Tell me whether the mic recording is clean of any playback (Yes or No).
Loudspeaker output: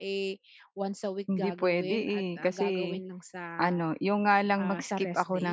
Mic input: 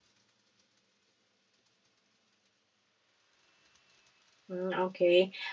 Yes